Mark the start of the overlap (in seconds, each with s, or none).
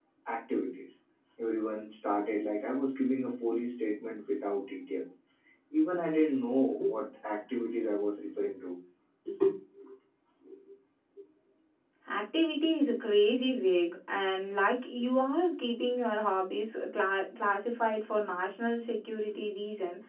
none